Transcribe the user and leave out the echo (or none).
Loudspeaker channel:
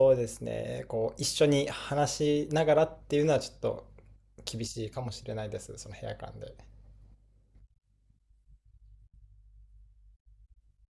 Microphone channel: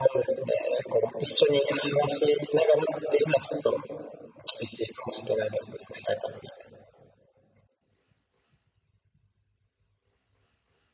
none